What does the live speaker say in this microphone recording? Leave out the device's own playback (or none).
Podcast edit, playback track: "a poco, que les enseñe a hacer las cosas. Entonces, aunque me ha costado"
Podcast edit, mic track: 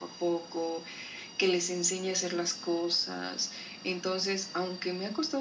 none